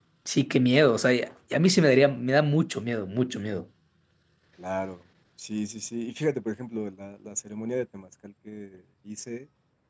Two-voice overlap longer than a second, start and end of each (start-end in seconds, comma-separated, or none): none